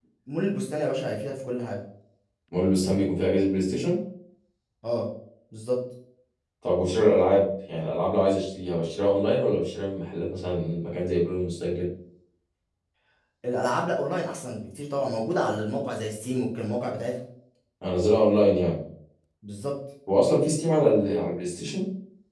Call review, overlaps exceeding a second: none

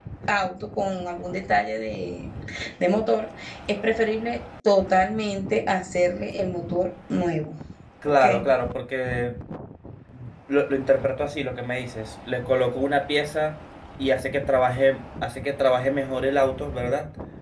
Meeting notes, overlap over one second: none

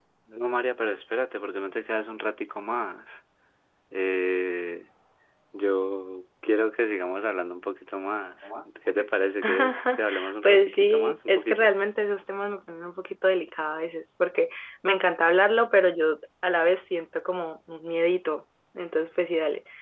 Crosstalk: present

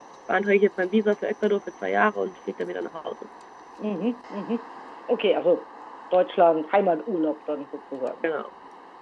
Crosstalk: none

